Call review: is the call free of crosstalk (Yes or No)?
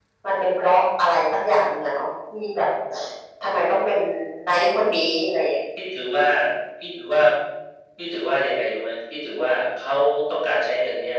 Yes